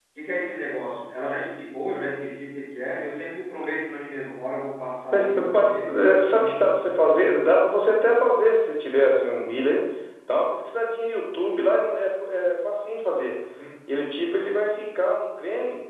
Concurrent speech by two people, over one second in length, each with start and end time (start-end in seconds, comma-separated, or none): 5.1-7.5